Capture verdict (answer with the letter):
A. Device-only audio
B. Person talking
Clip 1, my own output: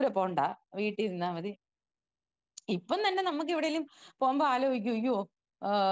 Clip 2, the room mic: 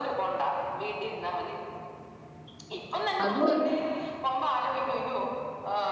B